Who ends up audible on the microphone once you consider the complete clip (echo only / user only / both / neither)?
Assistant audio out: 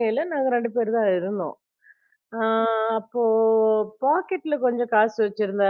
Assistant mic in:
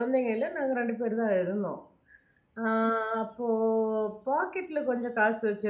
echo only